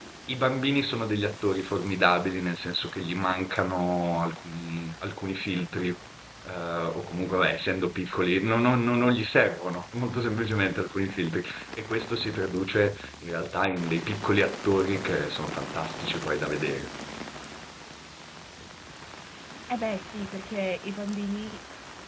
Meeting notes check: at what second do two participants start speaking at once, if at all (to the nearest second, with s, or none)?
none